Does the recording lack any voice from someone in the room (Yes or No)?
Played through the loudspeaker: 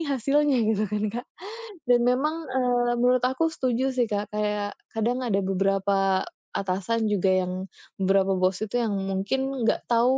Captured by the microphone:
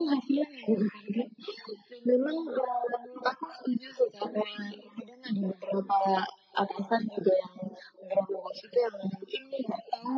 Yes